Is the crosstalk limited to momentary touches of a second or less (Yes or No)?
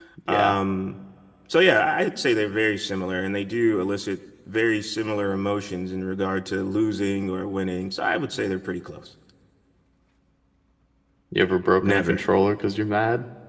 Yes